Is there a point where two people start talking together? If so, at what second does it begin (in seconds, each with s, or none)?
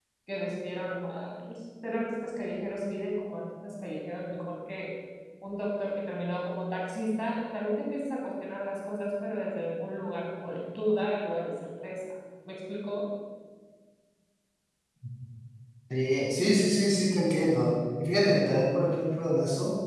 none